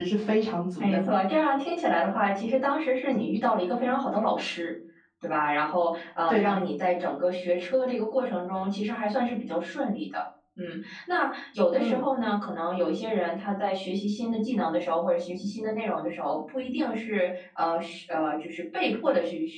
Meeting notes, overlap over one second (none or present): none